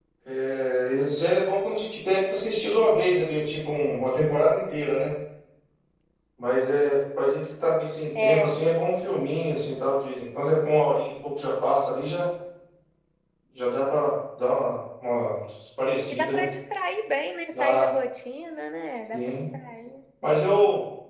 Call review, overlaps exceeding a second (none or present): none